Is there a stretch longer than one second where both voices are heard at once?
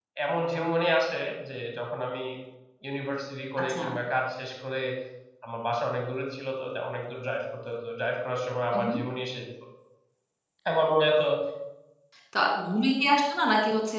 No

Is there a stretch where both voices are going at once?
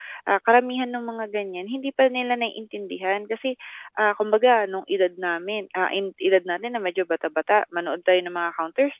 No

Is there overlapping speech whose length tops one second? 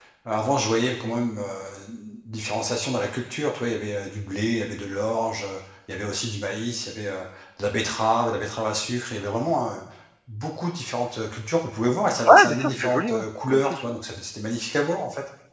Yes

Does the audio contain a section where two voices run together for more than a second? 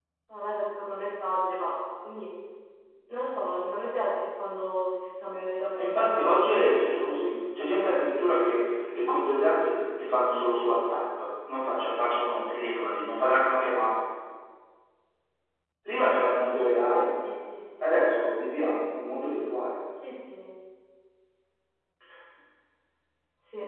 Yes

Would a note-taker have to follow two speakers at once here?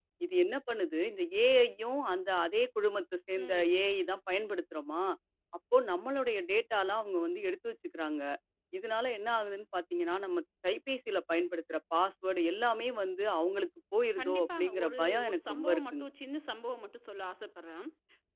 Yes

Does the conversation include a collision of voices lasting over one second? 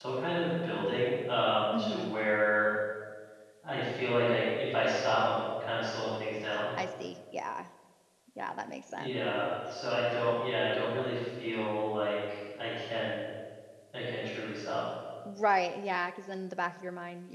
No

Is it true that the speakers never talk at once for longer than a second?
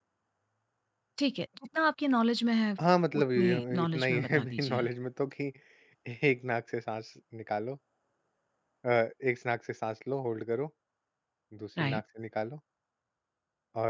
No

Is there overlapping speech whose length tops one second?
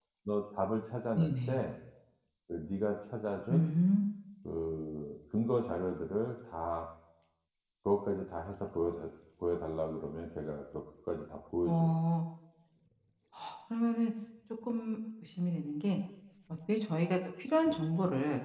No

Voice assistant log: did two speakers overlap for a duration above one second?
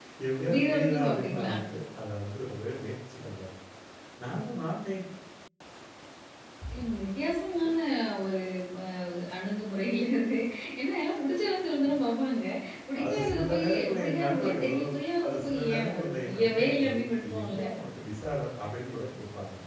Yes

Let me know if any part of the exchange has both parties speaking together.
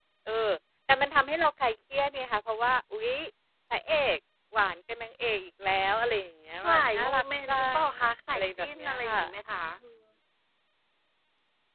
Yes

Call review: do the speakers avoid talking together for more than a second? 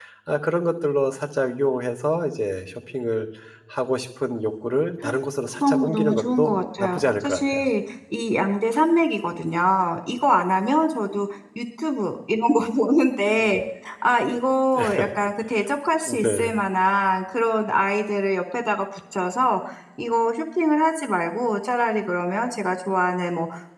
No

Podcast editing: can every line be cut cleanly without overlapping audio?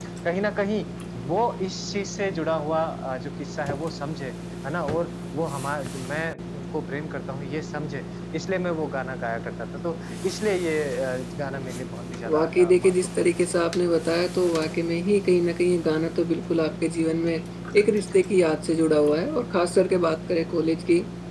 No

